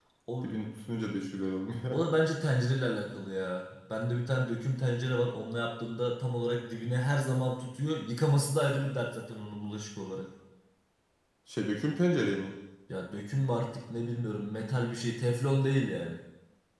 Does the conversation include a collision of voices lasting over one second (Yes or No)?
No